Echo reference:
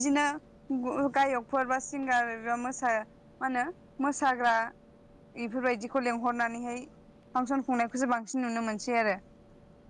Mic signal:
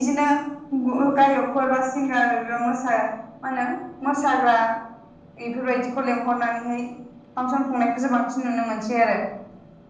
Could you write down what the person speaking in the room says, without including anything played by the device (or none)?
none